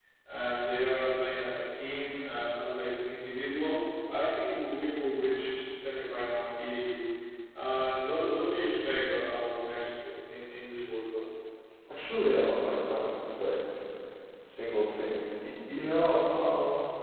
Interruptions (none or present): none